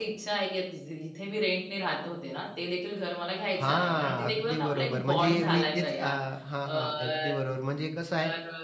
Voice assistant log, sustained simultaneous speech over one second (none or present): present